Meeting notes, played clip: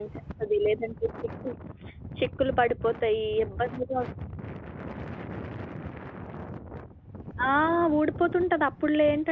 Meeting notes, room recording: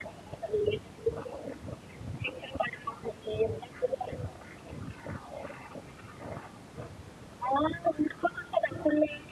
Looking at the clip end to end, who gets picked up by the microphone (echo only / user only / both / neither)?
echo only